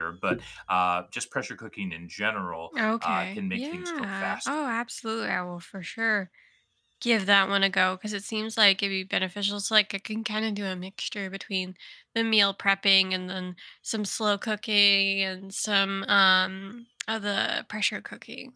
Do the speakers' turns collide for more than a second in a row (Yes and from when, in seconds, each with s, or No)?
Yes, from 3.0 s